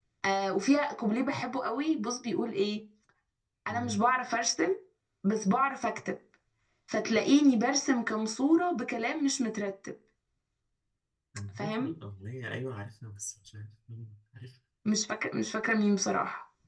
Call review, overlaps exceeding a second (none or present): none